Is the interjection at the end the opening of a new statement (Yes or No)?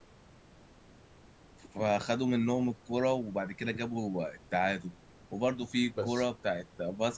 No